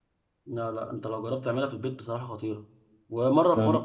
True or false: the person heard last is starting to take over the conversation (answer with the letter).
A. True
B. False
B